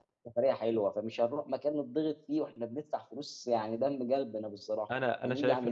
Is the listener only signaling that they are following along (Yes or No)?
No